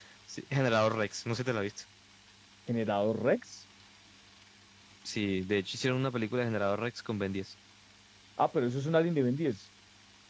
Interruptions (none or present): none